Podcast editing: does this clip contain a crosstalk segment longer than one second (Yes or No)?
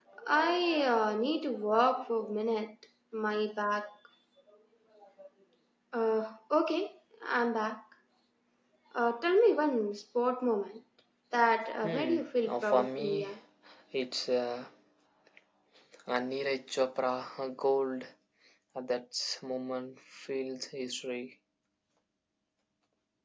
Yes